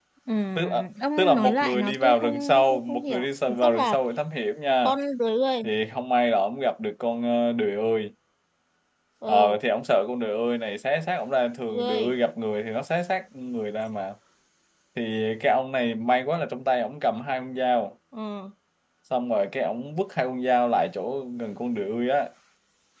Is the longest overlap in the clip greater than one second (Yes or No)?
Yes